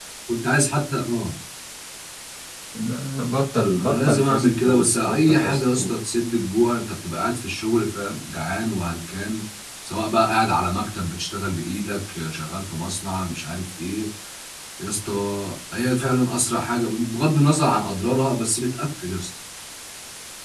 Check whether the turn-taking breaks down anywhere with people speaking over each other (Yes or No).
Yes